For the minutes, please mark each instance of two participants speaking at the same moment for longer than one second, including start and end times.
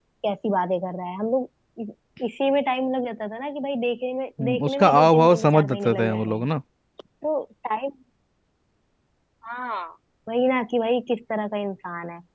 4.6-6.5

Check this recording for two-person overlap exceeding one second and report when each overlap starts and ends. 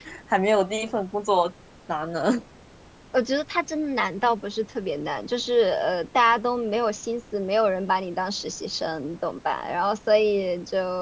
none

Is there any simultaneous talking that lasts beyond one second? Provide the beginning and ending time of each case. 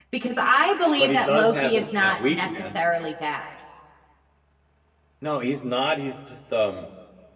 1.0-2.6

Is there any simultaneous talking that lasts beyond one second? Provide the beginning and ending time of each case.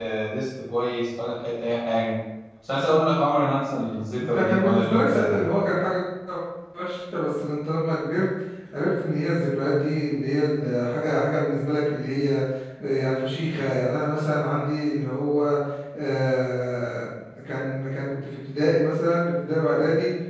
4.2-5.4

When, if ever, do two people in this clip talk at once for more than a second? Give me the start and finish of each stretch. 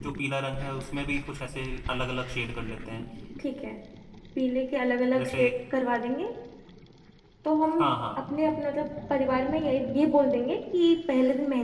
none

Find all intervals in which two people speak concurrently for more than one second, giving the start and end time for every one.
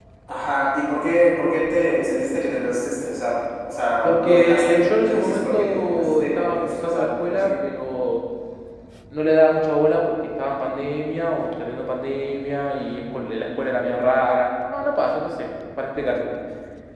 4.0-7.5

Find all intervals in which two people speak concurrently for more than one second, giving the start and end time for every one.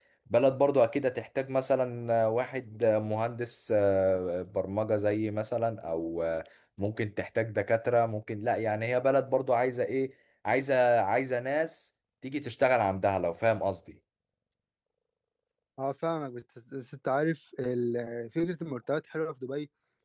none

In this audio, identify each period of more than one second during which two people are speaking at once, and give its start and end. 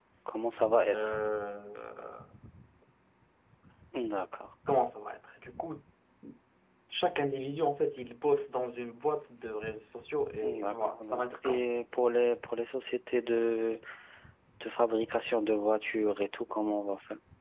10.4-11.6

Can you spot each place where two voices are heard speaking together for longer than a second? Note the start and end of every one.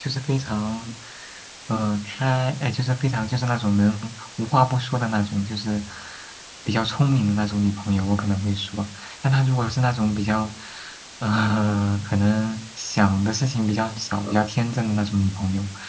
none

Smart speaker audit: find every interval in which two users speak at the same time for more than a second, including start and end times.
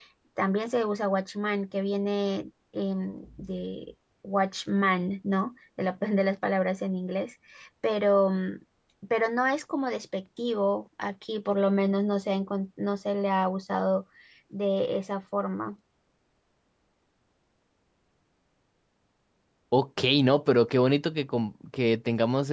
none

